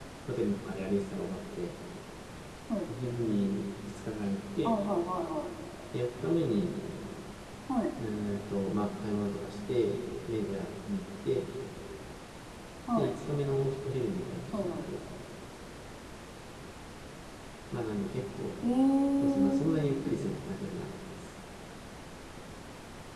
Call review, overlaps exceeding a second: none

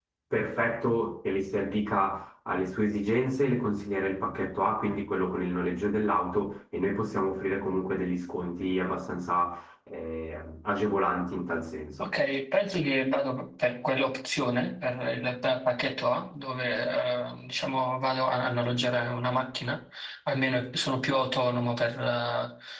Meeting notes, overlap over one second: none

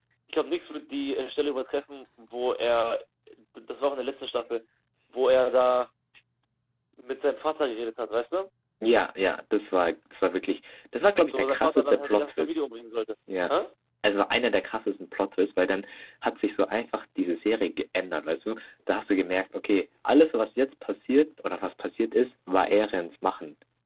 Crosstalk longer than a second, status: present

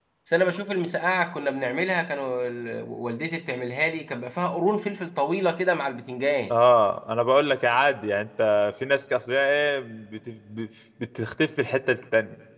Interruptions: none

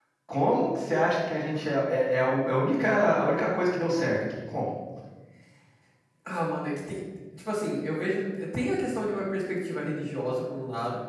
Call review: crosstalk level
none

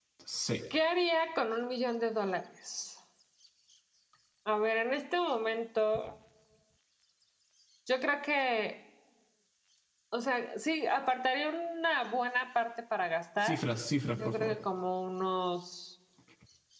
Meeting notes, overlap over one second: none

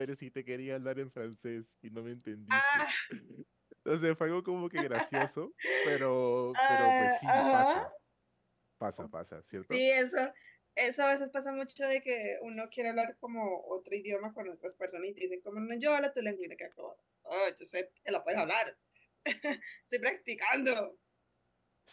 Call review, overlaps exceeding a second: present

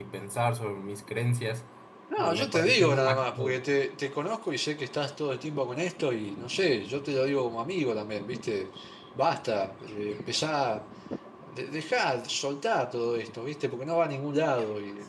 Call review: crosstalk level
present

